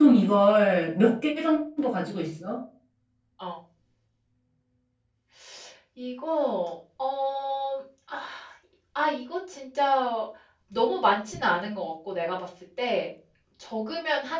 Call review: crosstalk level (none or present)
none